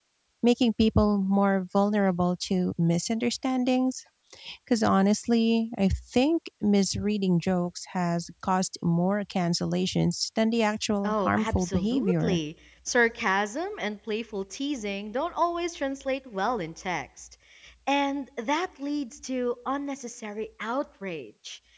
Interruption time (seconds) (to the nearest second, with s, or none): 11 s